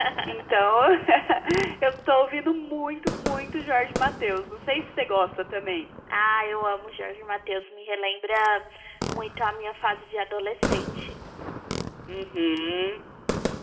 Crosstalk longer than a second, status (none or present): none